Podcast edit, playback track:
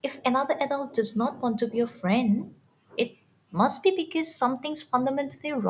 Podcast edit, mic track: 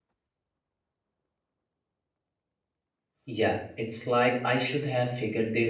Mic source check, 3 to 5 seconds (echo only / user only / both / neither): user only